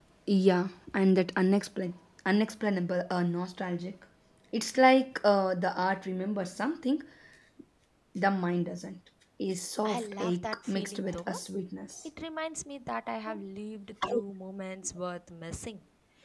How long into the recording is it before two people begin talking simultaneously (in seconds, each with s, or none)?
9.8 s